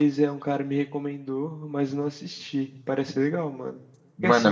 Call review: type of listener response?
listening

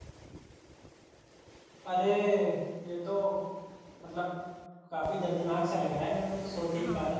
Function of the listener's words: taking over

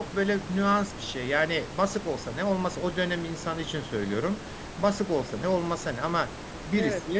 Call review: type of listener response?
listening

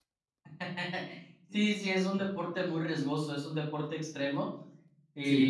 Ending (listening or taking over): listening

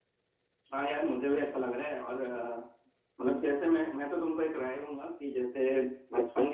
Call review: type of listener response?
listening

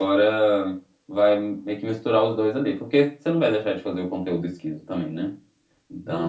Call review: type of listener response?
taking over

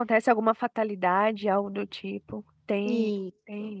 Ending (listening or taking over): taking over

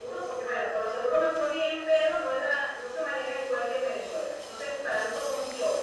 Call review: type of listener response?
listening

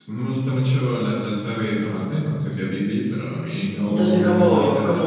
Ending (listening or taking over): taking over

